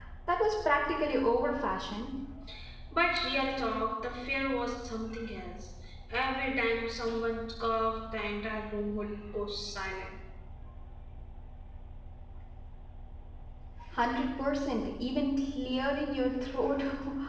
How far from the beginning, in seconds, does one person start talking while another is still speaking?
none

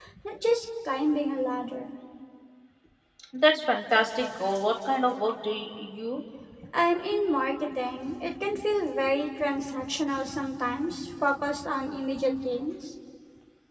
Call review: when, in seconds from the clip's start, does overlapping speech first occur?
none

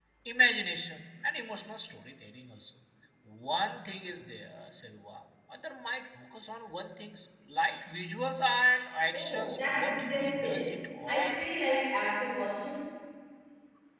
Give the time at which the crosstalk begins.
9 s

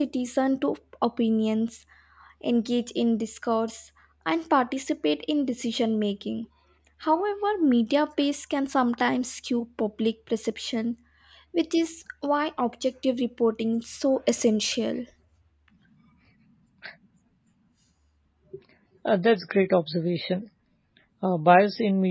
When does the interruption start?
none

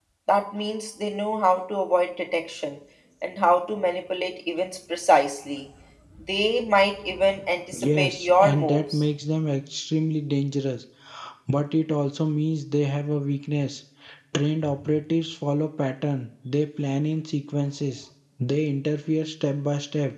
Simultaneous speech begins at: 8 s

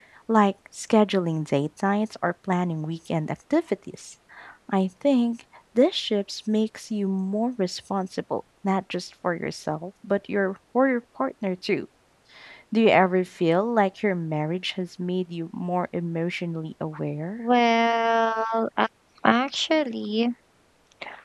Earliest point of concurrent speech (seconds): none

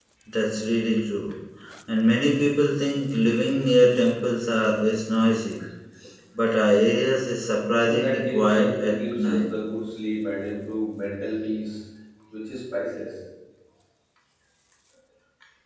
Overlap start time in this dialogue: 8 s

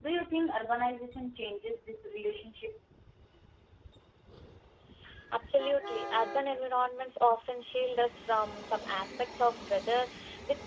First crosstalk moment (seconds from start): none

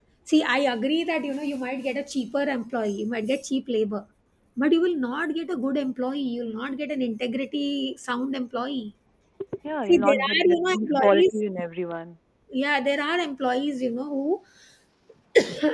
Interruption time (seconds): 10 s

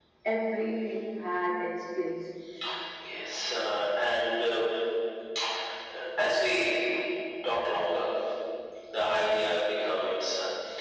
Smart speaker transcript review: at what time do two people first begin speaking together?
none

